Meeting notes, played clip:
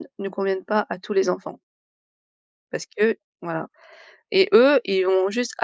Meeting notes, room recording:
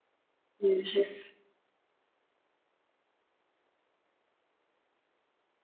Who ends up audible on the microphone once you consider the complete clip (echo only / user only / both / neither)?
user only